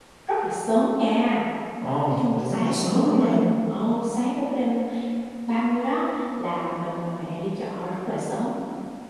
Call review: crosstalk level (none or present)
present